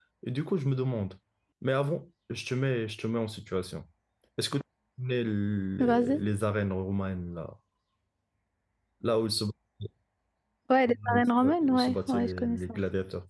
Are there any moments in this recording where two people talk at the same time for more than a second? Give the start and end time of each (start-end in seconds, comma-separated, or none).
11.1-12.8